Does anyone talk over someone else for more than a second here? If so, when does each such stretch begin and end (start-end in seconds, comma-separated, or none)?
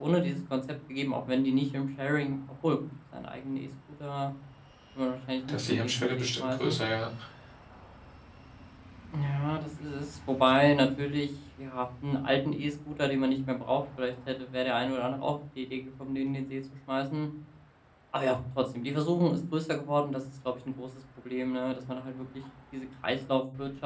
5.5-6.8